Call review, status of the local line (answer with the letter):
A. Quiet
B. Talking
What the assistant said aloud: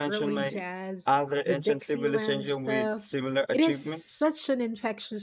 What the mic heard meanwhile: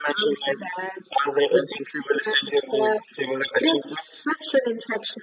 A